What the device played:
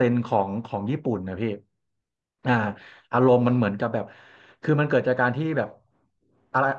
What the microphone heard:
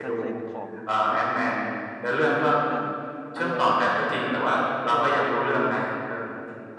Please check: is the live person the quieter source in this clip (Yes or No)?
No